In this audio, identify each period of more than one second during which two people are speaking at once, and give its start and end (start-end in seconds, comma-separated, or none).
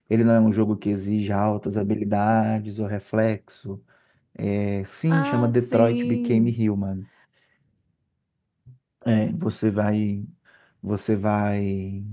5.1-6.5